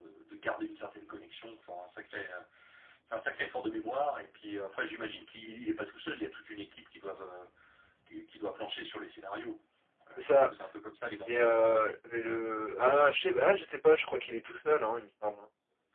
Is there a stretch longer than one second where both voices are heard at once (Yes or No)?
No